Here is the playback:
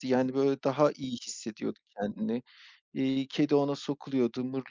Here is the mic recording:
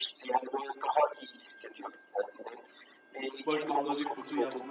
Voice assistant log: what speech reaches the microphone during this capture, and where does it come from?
both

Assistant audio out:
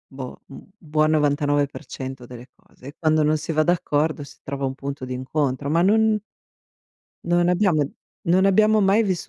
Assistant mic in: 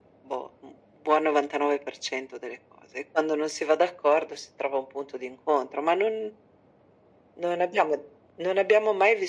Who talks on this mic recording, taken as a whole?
echo only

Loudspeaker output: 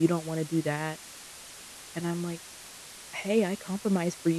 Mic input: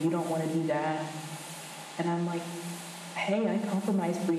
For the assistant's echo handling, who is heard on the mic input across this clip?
echo only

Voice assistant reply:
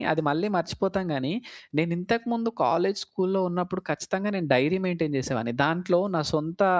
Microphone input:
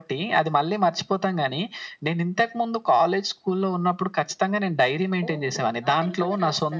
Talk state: both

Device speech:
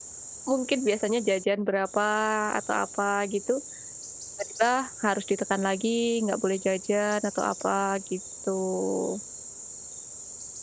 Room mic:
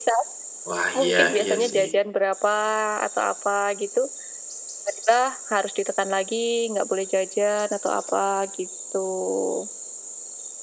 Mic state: both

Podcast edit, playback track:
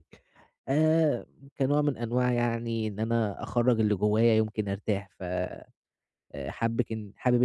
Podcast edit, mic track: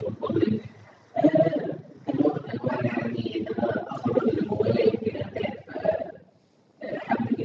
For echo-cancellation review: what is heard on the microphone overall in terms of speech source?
echo only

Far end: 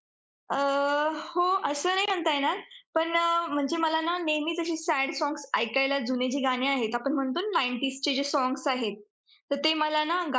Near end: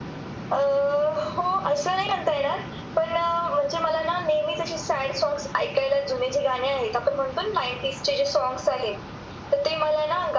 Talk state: echo only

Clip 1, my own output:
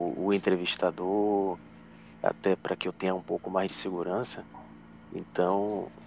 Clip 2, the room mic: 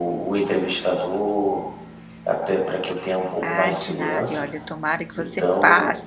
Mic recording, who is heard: both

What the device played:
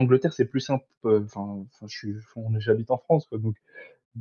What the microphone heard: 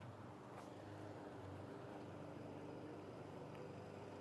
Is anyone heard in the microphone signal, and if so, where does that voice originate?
neither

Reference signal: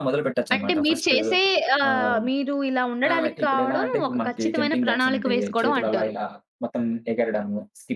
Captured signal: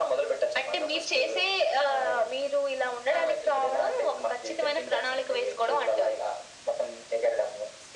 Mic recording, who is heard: echo only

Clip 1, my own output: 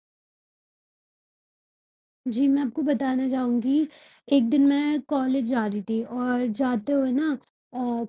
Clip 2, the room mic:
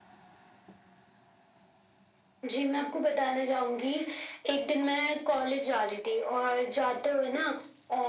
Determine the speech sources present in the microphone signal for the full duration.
echo only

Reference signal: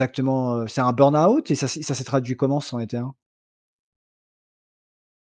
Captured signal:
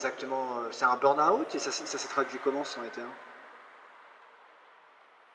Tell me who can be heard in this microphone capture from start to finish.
echo only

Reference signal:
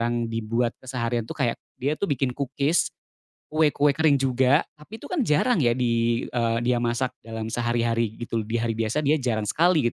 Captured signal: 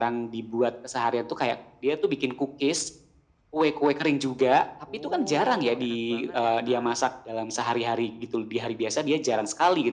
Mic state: both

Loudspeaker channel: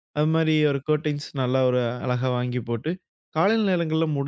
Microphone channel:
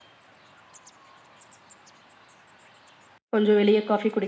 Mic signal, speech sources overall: user only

